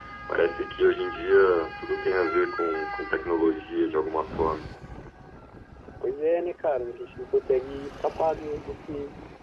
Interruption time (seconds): none

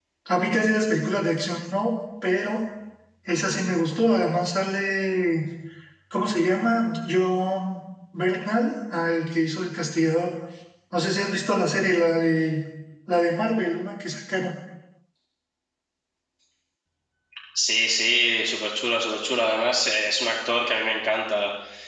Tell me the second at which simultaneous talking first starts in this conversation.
none

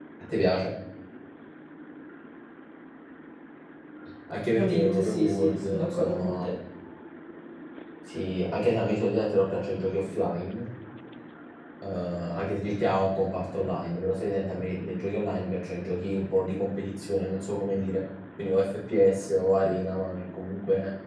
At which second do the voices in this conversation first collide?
4.5 s

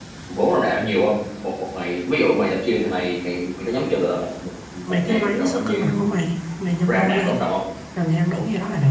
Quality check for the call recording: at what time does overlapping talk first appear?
4.9 s

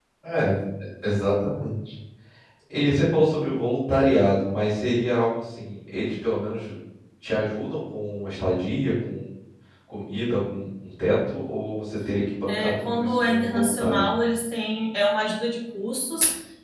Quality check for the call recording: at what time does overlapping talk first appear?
12.5 s

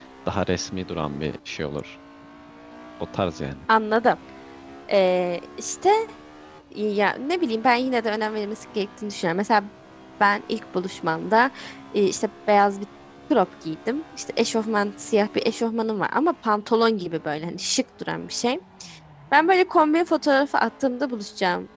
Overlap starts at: none

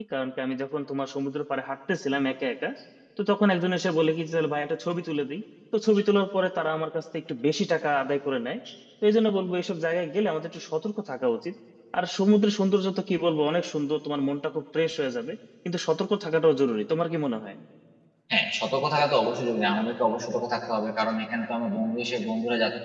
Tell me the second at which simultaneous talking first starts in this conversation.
none

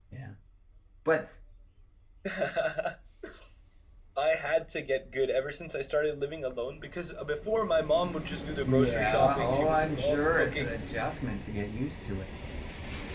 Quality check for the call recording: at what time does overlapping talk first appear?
8.6 s

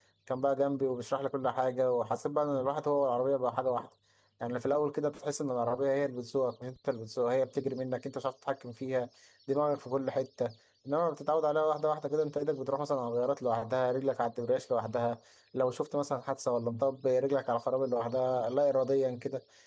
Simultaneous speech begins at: none

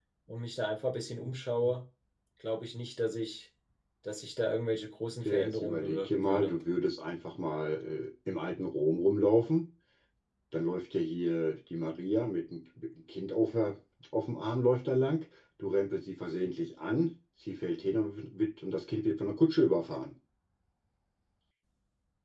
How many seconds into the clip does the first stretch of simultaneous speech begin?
5.2 s

